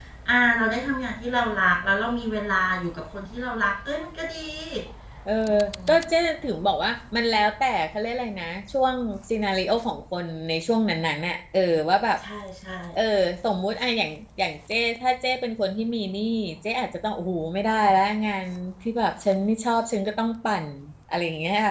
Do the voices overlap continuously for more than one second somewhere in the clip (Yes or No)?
No